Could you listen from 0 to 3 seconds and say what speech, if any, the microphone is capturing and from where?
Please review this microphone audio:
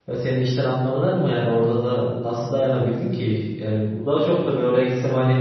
user only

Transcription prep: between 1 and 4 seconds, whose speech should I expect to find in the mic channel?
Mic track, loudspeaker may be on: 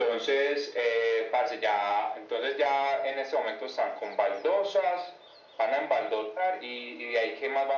echo only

